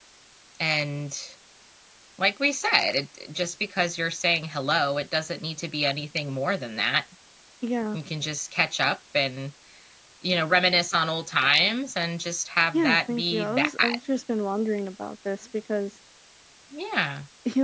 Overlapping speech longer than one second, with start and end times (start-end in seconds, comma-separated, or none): 12.7-14.0